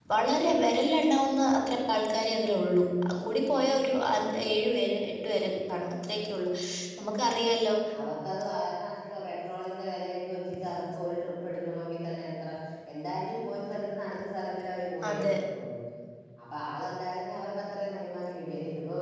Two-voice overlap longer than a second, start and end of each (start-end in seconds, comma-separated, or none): none